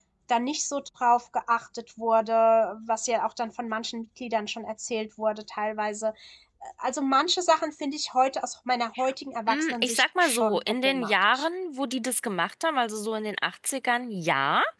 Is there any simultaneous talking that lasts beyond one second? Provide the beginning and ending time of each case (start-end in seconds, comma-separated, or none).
9.5-11.5